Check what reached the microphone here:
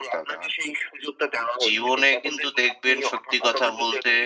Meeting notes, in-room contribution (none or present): present